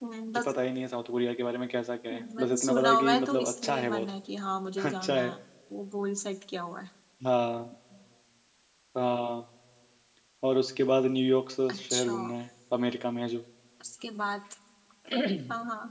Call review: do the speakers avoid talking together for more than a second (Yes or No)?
No